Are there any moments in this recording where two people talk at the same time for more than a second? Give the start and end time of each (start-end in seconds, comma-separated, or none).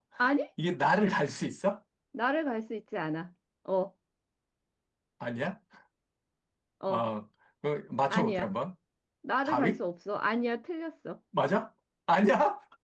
none